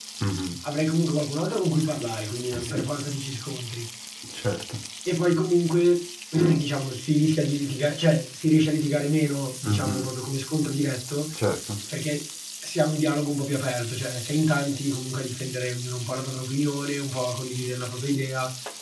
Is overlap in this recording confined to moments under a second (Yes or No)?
Yes